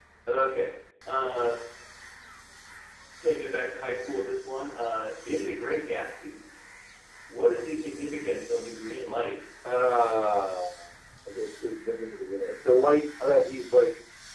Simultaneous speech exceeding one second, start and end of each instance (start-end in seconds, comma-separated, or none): none